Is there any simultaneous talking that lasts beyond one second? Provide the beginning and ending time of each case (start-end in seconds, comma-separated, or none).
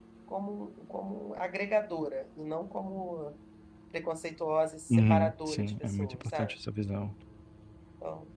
4.9-6.5